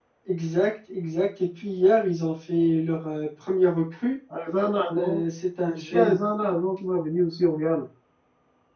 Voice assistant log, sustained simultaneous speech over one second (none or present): none